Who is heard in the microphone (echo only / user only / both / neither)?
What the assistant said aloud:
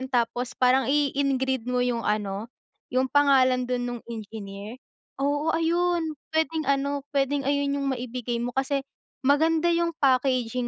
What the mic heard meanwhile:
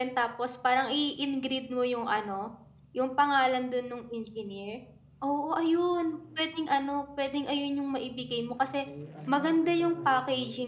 both